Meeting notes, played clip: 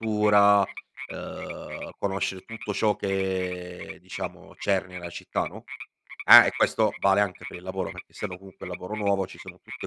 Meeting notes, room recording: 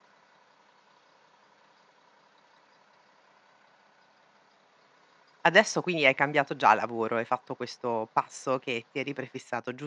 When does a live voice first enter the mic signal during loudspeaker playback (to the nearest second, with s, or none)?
5 s